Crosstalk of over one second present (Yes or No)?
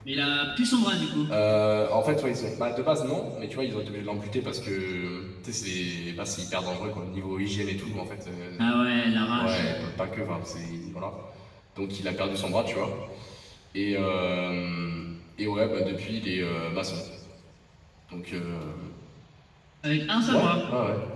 No